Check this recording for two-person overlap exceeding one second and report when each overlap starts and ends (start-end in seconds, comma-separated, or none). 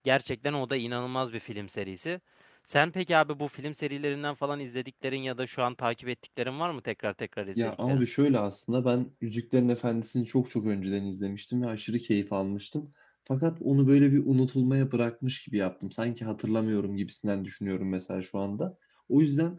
none